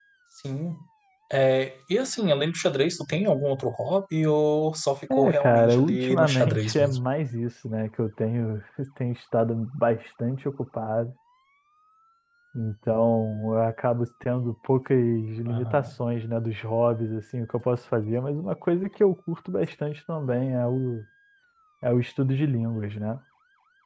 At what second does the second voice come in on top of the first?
5 s

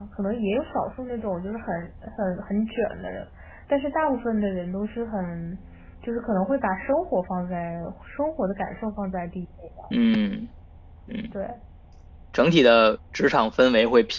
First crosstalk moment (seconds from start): none

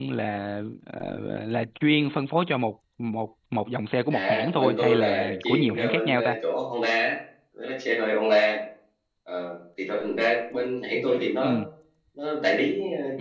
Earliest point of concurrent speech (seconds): 4 s

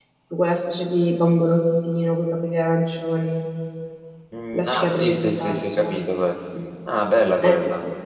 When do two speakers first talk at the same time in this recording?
5 s

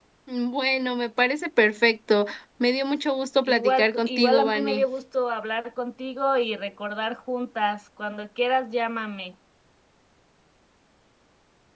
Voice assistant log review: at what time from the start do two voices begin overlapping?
3 s

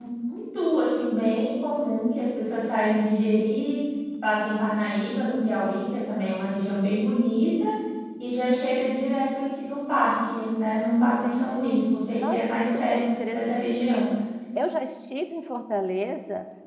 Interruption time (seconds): 11 s

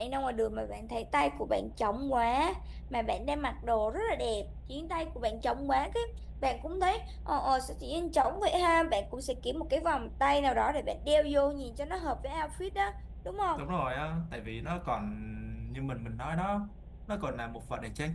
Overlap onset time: none

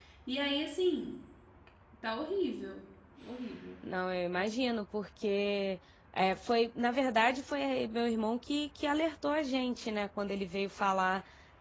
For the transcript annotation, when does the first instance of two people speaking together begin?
none

